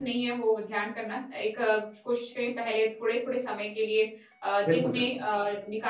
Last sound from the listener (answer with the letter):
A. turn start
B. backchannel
B